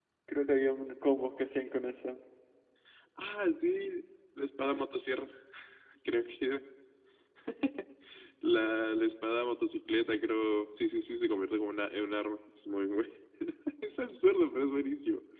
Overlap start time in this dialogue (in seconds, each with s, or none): none